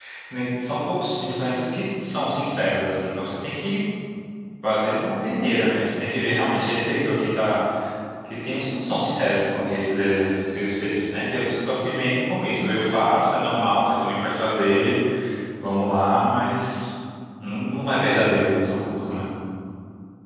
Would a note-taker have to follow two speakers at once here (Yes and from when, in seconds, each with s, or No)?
No